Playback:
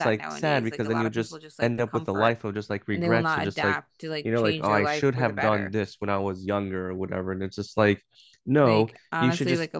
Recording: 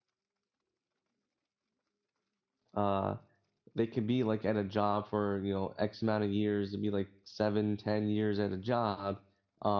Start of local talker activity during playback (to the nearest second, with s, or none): 3 s